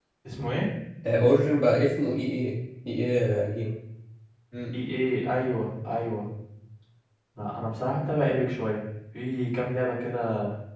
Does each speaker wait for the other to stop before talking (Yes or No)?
Yes